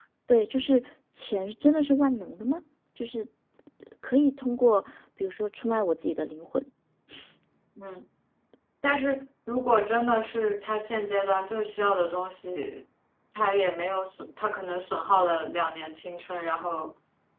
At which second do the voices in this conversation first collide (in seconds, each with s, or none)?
none